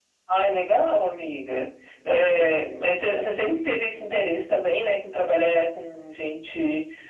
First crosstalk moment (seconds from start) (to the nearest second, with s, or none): none